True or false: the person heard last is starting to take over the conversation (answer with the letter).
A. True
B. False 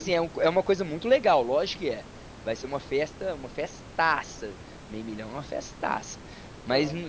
B